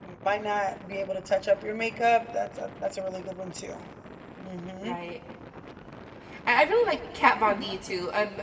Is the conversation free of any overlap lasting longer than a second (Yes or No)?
Yes